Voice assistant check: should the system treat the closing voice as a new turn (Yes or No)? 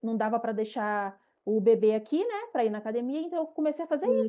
Yes